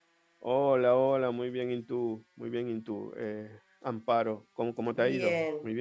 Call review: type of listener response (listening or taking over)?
taking over